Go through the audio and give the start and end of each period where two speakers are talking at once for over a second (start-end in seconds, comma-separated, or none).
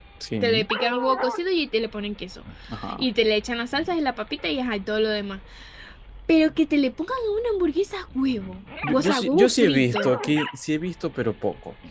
8.9-10.1